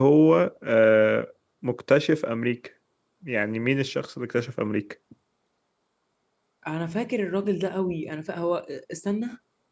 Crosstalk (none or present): none